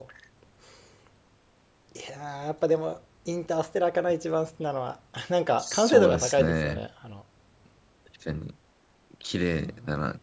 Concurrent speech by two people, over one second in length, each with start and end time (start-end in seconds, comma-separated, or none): 5.6-6.8